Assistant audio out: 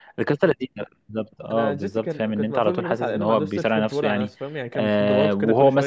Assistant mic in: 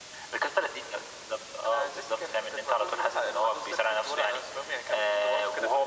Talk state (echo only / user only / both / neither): echo only